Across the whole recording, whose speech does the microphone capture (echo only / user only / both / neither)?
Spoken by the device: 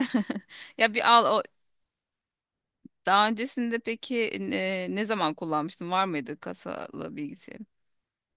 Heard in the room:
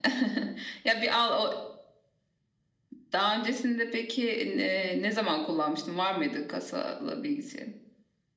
echo only